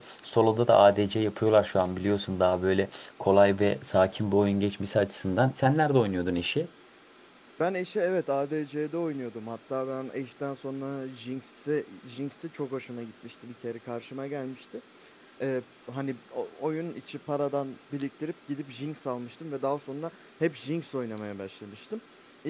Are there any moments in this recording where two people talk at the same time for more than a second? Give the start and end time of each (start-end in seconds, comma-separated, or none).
none